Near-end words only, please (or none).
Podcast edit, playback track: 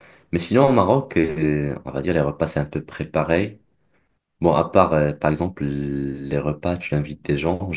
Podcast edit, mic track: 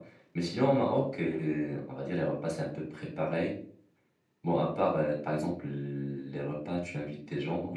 none